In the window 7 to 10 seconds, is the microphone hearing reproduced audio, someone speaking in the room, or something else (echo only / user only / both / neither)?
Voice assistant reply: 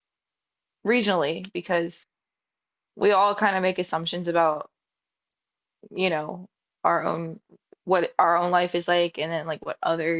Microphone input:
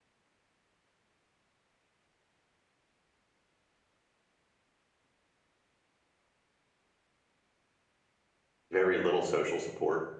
user only